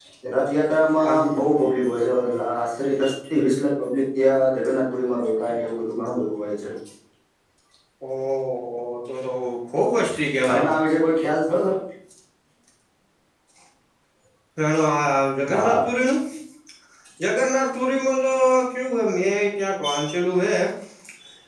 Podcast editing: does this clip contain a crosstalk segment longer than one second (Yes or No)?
No